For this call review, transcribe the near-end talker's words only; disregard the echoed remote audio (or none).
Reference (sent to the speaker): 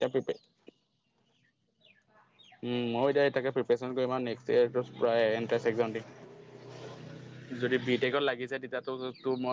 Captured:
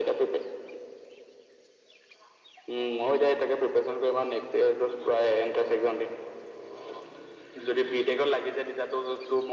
none